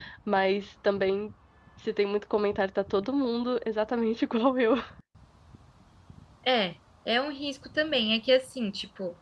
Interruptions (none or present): none